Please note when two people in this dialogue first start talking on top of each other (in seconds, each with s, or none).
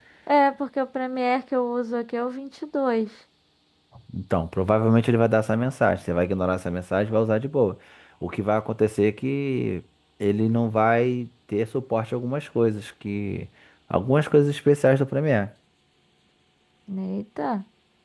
none